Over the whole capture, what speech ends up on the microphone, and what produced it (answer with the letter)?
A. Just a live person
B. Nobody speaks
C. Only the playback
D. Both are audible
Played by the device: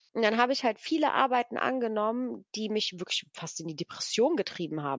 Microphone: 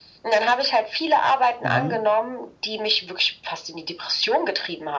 D